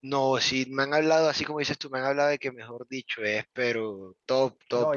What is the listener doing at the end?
taking over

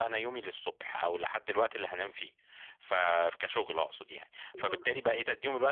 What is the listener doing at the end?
listening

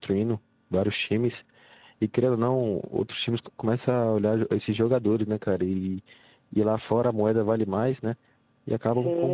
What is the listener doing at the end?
taking over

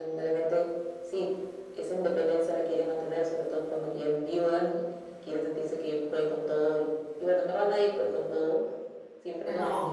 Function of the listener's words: listening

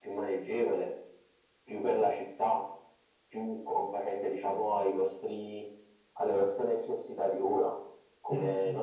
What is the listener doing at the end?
listening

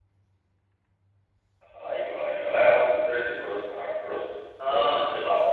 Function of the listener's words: listening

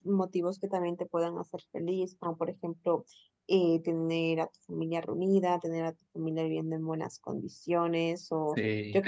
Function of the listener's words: listening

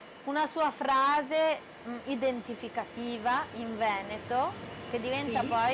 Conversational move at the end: listening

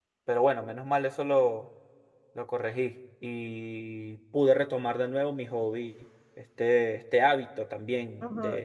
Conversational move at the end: taking over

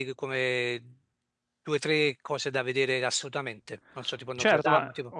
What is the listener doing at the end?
taking over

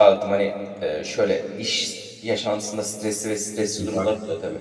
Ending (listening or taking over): listening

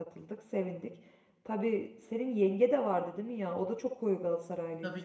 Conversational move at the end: taking over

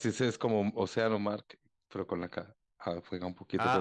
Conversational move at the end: taking over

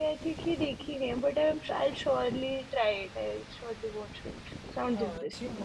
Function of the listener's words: taking over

